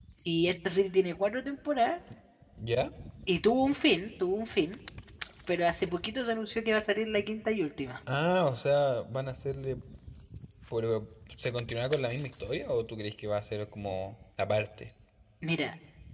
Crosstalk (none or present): none